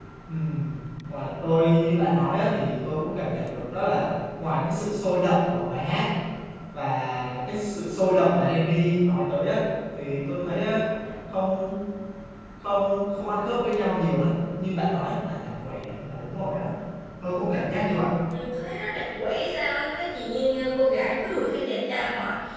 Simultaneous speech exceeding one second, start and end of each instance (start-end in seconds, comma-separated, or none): none